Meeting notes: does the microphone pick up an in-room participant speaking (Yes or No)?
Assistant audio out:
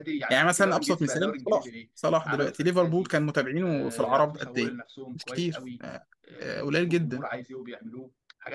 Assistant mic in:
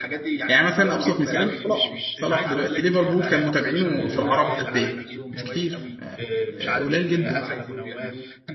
Yes